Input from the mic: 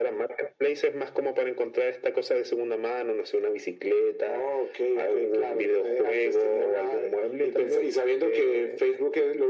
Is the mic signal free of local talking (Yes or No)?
Yes